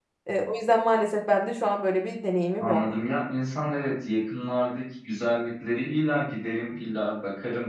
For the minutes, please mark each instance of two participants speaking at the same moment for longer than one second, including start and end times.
none

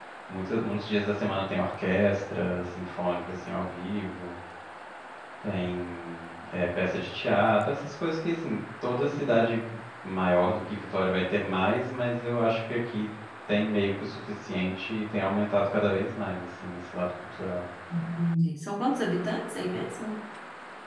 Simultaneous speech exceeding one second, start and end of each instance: none

